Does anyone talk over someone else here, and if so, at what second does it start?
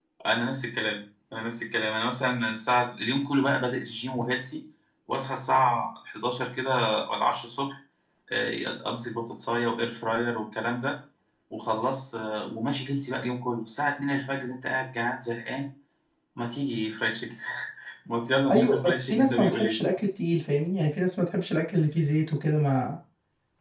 18.5 s

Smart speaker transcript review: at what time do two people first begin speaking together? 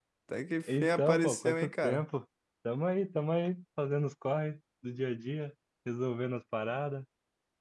0.7 s

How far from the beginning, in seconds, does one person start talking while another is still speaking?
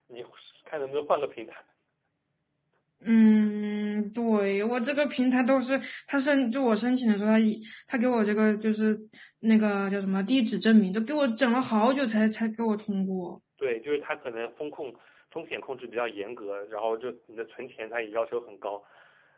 none

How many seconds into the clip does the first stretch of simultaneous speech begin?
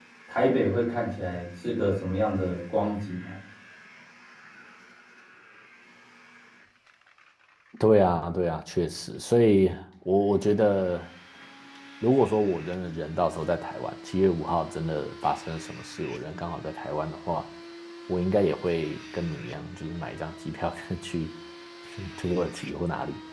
none

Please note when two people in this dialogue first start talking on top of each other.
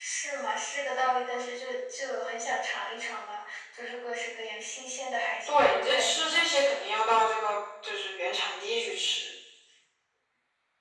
5.5 s

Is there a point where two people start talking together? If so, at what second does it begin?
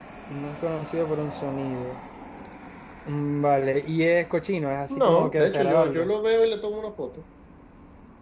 4.9 s

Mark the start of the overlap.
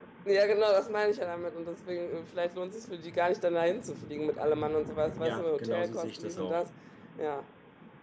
5.2 s

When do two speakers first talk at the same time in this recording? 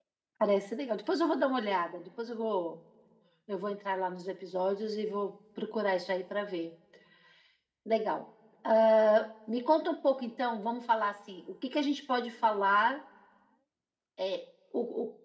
none

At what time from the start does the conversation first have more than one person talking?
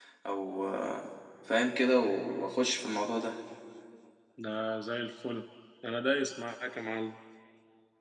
none

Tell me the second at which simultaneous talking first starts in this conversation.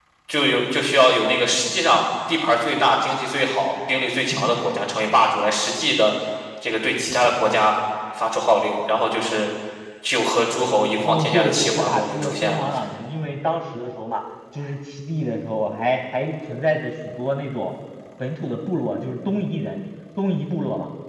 11.1 s

